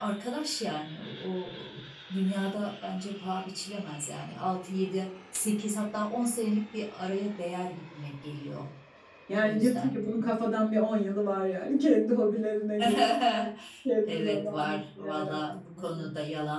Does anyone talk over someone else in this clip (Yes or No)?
Yes